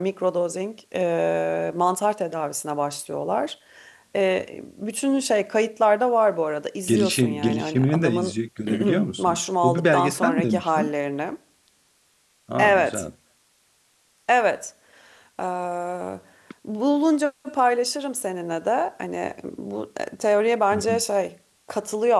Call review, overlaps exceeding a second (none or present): present